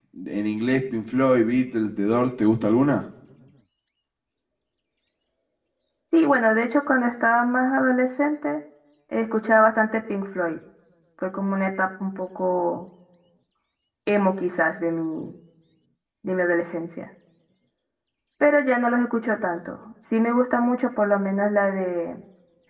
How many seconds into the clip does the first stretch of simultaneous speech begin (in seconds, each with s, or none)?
none